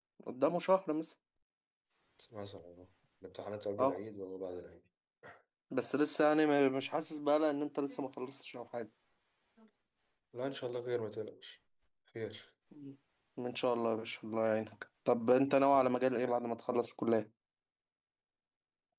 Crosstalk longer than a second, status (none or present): none